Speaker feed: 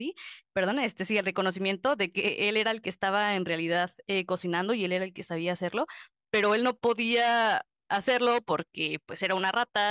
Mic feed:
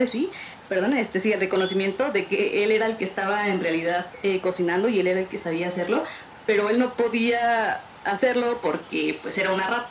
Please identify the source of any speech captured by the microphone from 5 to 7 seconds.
echo only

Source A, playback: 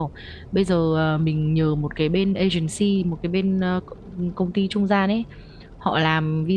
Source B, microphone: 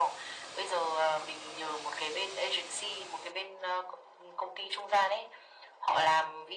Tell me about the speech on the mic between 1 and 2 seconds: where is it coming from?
echo only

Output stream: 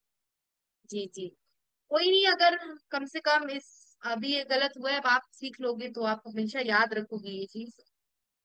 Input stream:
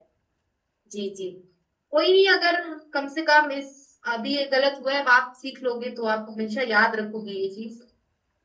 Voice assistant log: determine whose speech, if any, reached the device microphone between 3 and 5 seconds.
echo only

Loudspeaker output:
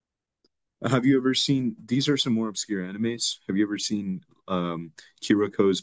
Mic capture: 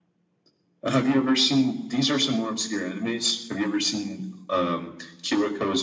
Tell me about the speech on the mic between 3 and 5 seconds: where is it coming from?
echo only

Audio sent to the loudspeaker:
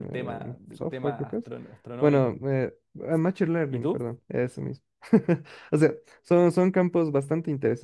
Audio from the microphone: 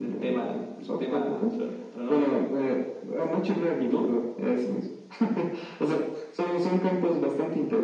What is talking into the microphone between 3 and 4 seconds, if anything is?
echo only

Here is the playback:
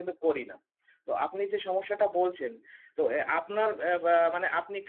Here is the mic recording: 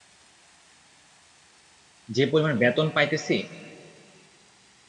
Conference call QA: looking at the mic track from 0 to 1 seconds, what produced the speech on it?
neither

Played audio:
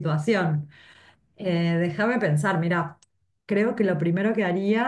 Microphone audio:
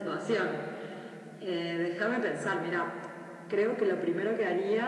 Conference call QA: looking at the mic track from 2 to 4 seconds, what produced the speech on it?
echo only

